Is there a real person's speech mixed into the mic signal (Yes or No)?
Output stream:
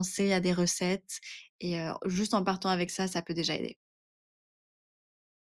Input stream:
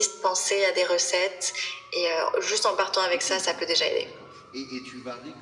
Yes